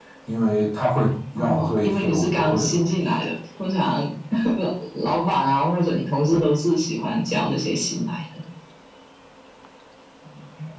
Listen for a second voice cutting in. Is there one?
Yes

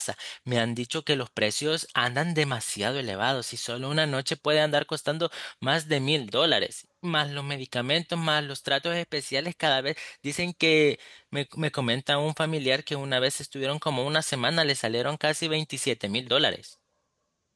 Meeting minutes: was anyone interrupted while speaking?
No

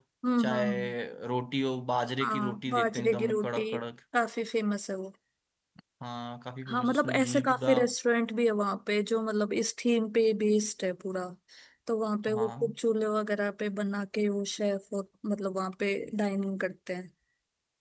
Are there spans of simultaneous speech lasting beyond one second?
Yes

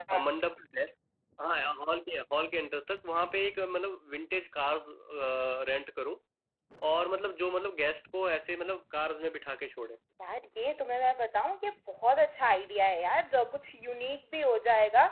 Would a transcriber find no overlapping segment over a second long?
Yes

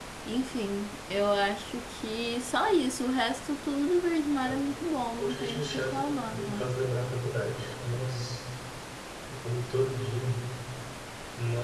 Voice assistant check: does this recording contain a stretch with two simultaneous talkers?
Yes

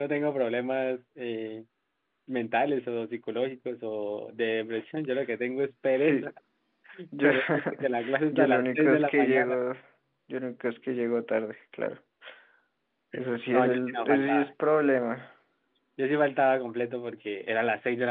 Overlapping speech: Yes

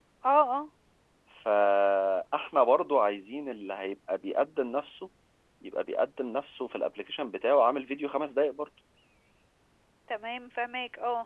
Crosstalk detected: No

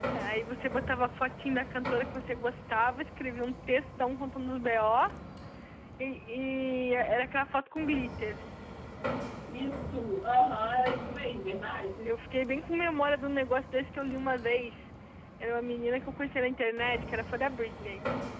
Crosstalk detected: No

